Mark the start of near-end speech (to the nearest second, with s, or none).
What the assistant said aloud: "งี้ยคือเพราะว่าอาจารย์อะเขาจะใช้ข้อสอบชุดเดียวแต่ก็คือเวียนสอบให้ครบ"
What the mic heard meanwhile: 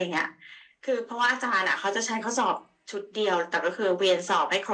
none